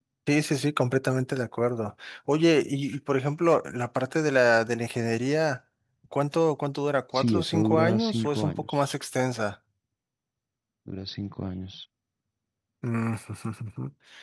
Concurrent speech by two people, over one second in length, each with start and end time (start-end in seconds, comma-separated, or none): 7.1-8.7